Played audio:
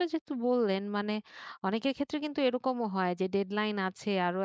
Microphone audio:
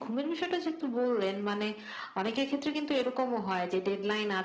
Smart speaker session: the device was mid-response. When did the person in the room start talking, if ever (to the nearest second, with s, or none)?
none